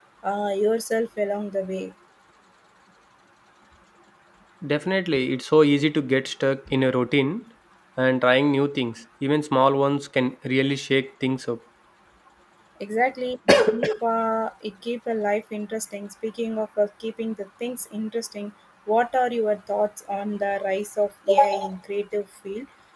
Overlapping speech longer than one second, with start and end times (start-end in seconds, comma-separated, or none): none